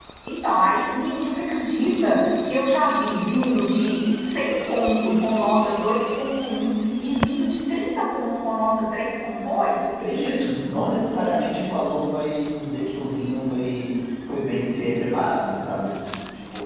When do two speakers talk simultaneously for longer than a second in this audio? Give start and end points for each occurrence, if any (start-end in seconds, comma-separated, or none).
none